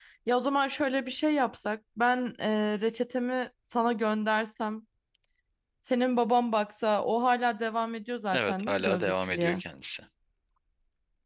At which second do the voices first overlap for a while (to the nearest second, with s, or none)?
8 s